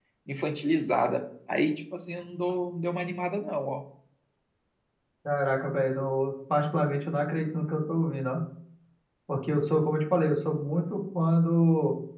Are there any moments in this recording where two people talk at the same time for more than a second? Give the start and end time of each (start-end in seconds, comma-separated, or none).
none